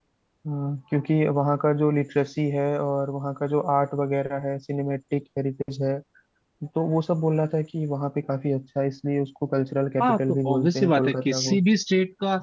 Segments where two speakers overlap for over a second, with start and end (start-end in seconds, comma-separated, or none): 10.0-11.6